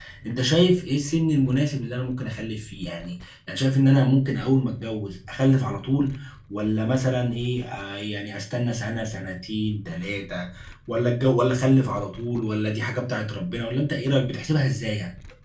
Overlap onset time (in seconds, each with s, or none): none